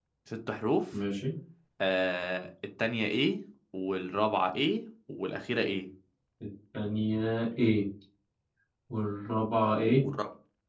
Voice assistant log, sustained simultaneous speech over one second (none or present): none